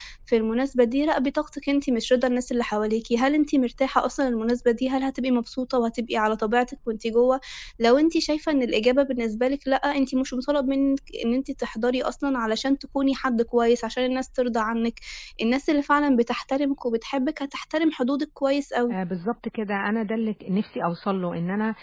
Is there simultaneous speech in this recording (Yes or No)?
No